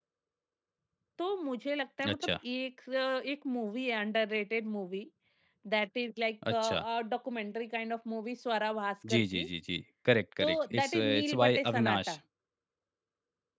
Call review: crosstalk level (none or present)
present